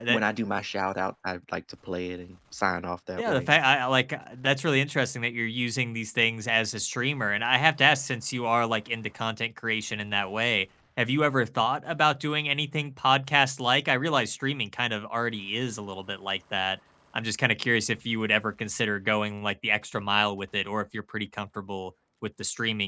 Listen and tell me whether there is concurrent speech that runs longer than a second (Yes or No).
No